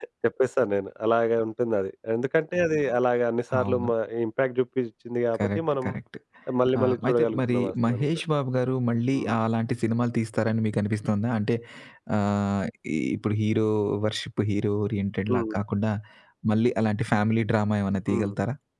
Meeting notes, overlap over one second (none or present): present